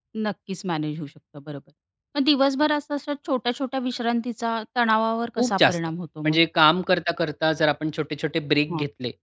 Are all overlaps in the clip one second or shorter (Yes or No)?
Yes